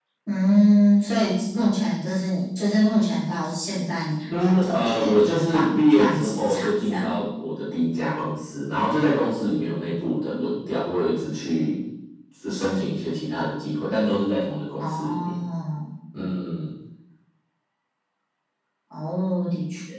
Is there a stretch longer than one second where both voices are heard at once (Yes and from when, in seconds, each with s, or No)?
Yes, from 4.3 s